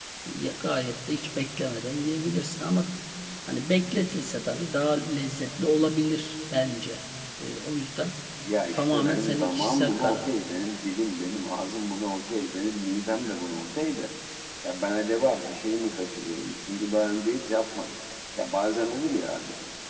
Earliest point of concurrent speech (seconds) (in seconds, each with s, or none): 8.7 s